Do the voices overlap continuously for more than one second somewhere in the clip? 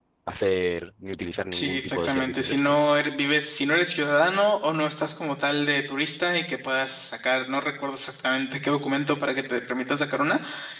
Yes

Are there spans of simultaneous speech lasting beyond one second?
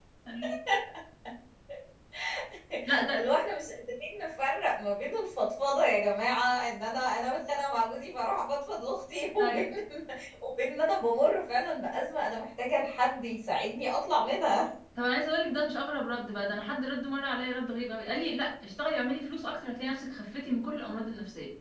No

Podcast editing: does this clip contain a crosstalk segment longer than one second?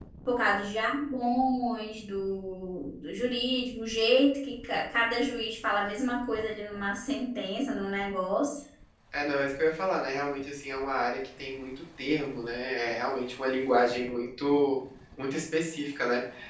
No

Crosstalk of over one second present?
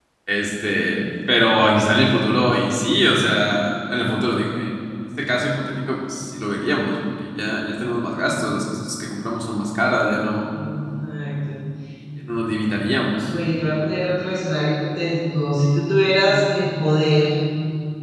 No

